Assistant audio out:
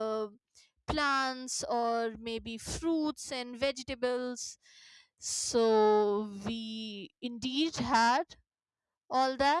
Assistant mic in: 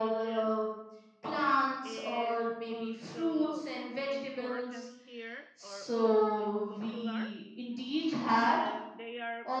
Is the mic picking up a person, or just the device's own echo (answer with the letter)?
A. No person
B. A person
B